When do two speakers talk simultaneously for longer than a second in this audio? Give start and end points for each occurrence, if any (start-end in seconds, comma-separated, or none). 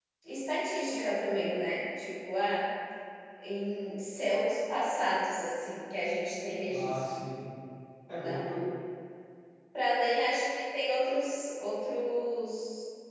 none